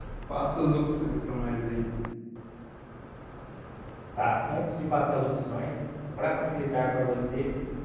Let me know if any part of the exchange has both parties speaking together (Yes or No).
No